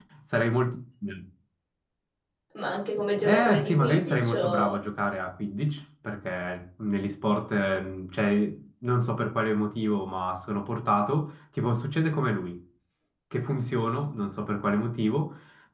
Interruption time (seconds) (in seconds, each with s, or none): 3.2 s